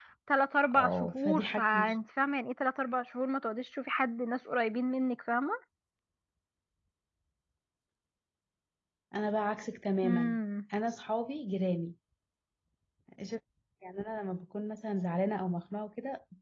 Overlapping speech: Yes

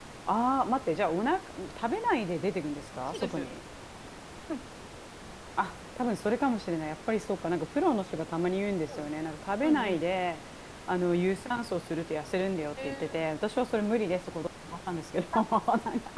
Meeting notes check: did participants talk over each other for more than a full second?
No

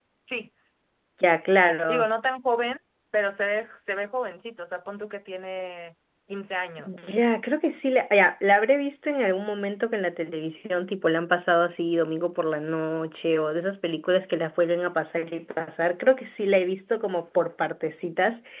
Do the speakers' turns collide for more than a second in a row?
No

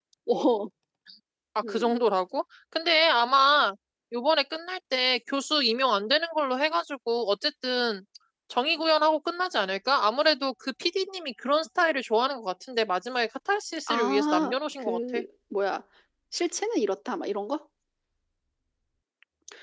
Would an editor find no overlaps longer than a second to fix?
No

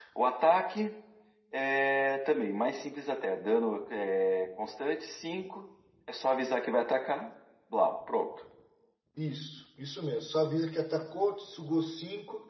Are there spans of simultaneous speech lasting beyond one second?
No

